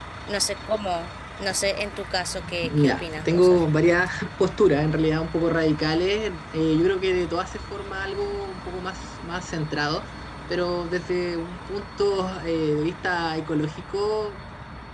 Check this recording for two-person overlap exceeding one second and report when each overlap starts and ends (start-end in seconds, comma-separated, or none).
2.6-3.9